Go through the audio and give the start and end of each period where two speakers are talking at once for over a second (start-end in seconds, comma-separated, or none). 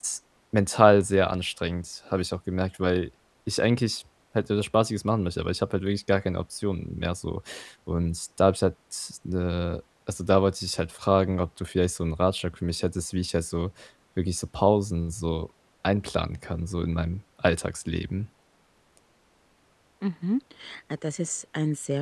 none